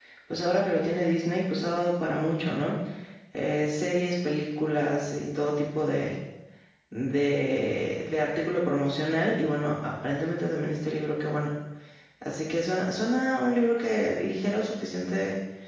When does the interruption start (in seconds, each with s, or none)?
none